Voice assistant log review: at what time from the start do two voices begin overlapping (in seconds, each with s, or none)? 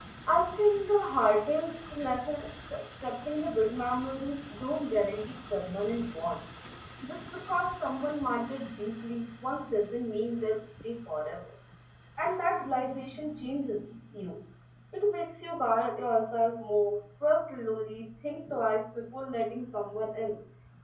none